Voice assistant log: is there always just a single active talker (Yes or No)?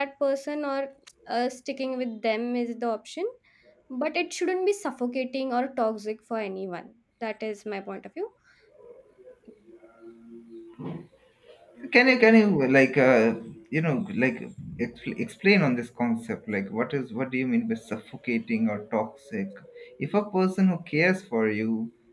Yes